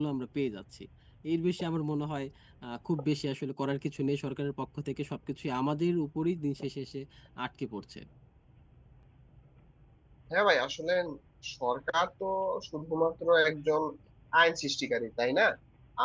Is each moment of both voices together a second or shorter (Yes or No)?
Yes